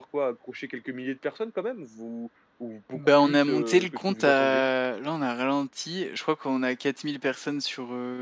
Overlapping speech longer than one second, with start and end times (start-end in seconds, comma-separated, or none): 2.9-4.6